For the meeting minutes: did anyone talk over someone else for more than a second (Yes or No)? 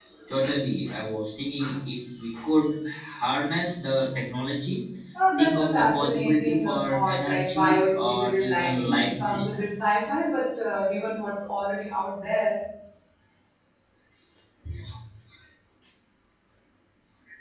Yes